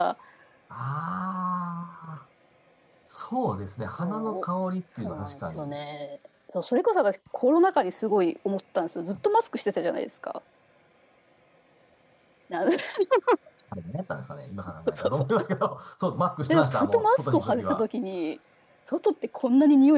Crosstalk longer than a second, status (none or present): present